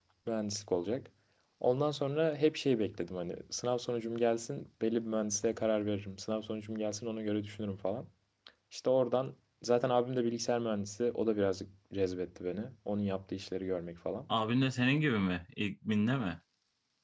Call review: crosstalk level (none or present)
none